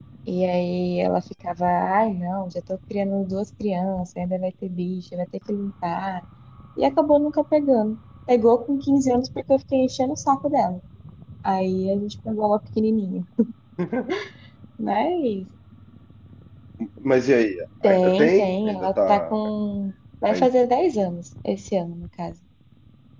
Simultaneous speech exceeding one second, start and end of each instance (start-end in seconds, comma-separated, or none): 17.8-19.4